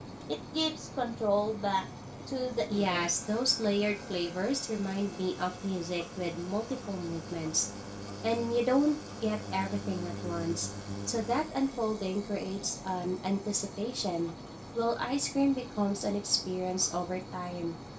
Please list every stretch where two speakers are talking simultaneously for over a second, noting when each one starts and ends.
none

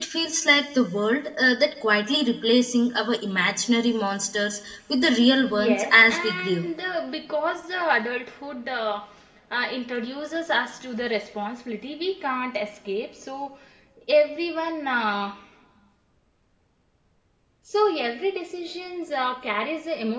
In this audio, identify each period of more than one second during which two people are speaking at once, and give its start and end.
5.4-6.7

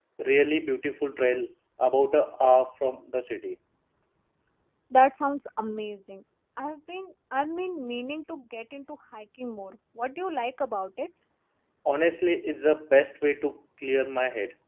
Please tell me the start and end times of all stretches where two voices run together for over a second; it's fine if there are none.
none

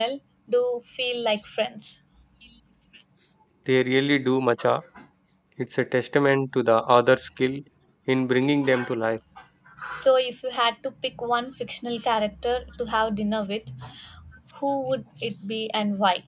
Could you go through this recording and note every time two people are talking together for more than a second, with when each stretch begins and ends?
none

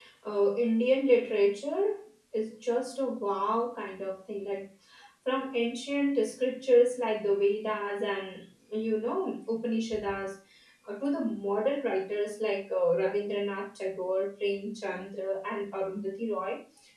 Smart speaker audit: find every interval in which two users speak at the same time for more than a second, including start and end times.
none

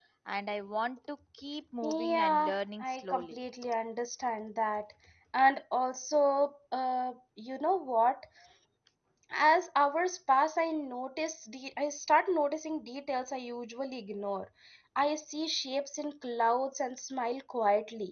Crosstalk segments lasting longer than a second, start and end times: 1.8-3.4

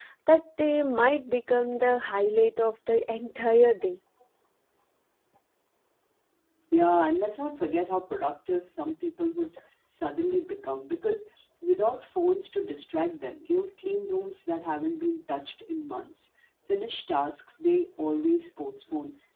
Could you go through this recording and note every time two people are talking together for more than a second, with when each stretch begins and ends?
none

